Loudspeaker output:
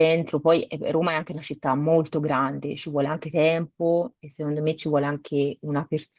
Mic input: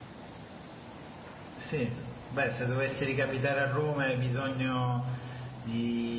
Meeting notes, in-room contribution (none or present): present